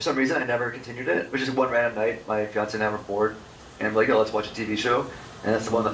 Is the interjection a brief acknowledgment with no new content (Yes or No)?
Yes